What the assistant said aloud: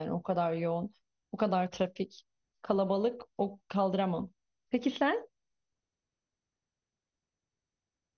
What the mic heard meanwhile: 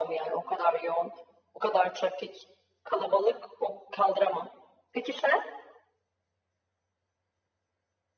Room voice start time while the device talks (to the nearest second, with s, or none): none